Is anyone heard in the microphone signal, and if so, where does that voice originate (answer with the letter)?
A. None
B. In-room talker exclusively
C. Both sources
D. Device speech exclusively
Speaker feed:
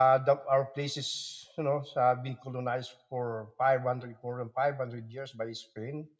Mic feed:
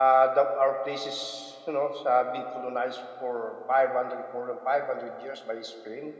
D